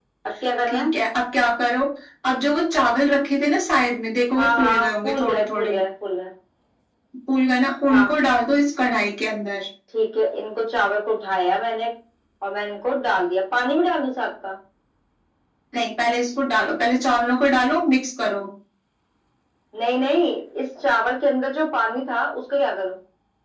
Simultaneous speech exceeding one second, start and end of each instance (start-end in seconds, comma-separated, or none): 4.4-5.7